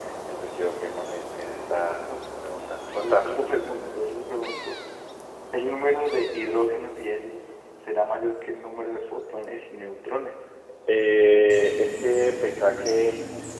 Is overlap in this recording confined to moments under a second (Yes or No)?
Yes